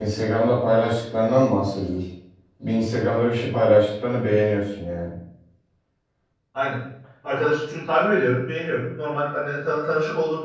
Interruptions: none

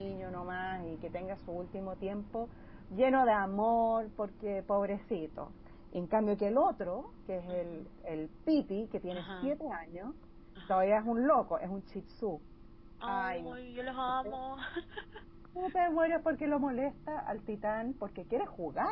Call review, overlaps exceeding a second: none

